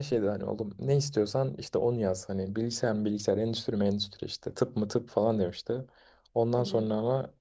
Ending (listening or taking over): listening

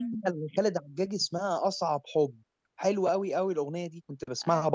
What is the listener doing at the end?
listening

